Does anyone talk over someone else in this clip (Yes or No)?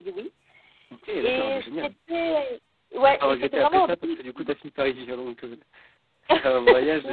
Yes